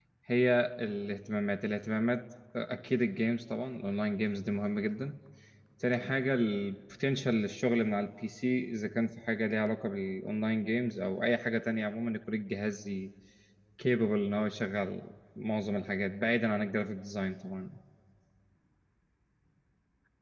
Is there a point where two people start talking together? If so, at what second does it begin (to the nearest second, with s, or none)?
none